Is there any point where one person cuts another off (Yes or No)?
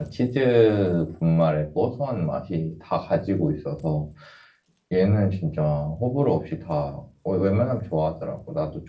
No